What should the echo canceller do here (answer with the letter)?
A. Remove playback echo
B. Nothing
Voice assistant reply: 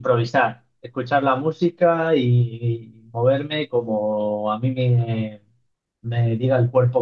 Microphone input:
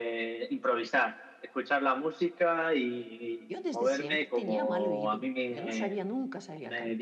A